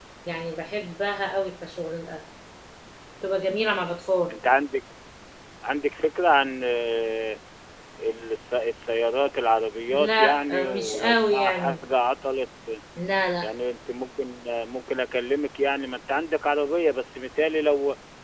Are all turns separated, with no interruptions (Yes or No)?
No